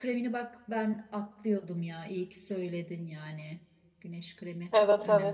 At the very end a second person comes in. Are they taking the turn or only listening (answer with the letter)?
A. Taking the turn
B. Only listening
A